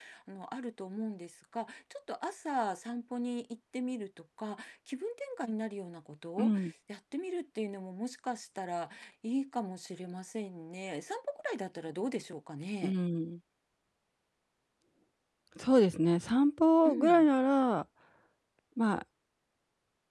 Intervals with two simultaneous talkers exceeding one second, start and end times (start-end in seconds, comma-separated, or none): none